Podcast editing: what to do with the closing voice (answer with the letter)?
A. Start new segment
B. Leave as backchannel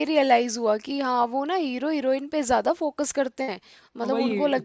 A